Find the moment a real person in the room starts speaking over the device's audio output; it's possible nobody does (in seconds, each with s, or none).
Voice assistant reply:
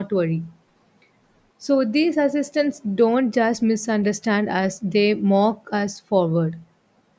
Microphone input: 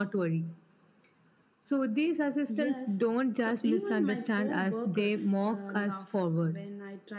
2.5 s